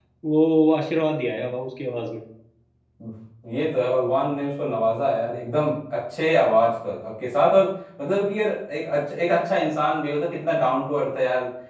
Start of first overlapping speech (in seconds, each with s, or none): none